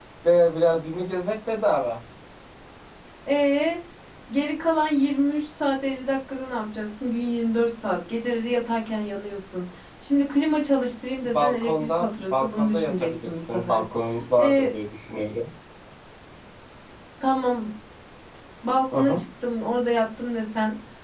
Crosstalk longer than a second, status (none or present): present